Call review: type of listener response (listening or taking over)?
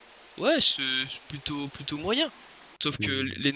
listening